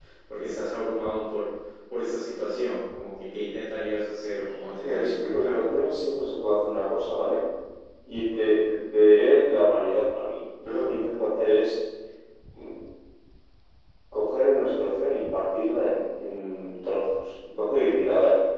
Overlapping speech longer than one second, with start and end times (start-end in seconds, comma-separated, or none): 4.4-5.7